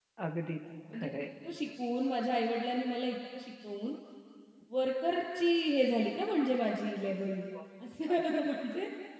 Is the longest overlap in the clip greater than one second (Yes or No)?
No